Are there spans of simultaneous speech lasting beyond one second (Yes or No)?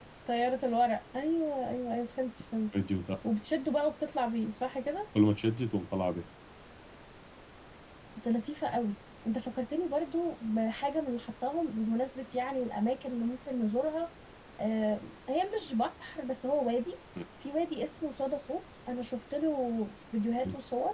No